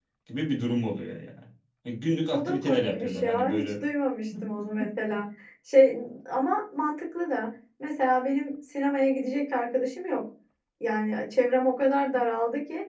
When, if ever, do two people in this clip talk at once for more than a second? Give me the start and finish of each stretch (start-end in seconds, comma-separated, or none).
2.3-3.7